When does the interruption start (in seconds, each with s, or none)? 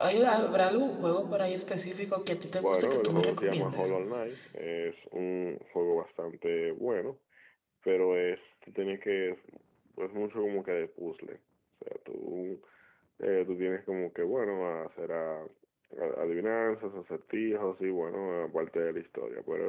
2.6 s